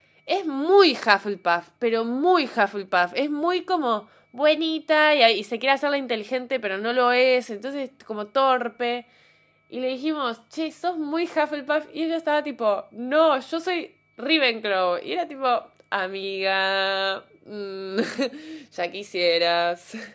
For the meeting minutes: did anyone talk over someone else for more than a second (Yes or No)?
No